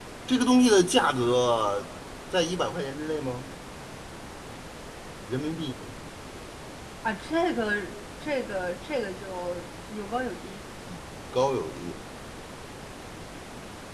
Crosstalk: none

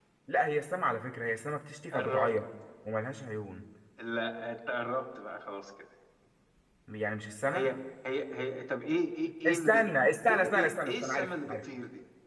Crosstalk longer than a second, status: present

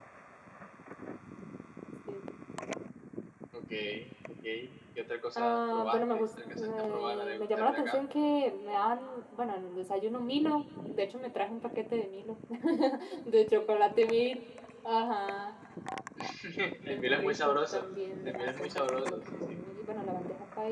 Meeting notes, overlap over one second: present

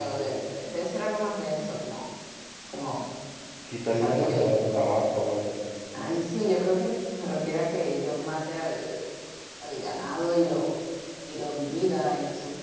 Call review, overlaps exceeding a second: none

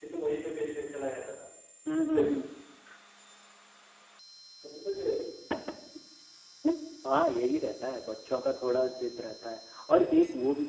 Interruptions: none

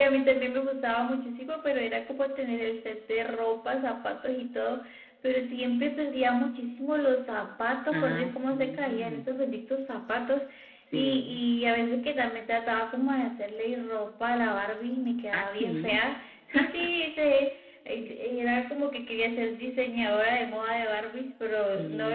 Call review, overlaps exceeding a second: present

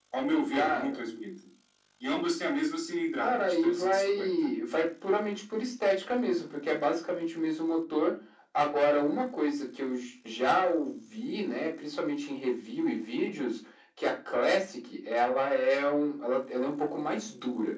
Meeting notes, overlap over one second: present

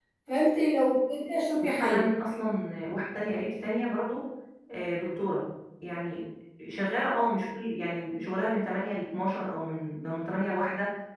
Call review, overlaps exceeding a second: none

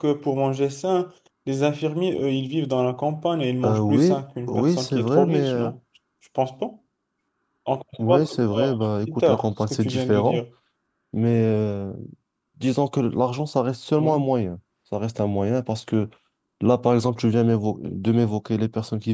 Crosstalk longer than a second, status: present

